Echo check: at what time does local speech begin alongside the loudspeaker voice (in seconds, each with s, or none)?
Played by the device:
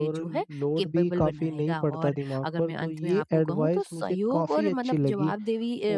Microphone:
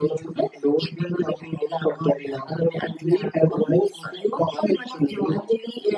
none